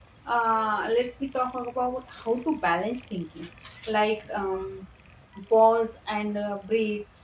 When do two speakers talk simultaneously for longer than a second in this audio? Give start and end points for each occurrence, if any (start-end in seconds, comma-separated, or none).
none